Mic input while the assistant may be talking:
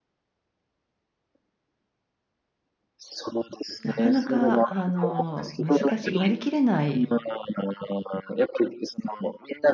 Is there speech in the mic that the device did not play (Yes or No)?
Yes